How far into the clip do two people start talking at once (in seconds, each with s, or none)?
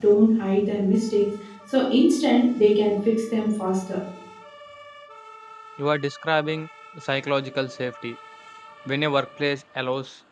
none